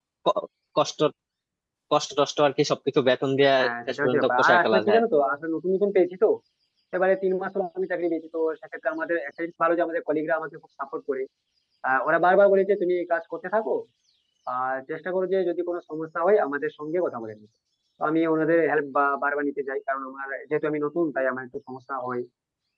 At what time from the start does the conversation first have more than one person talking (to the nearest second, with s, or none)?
4 s